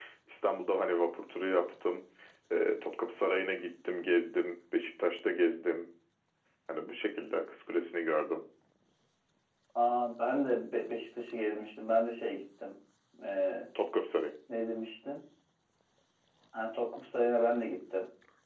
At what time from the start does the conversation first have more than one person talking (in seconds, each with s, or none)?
none